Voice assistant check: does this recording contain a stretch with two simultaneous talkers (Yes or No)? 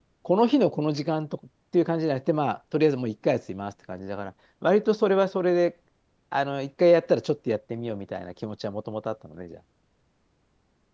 No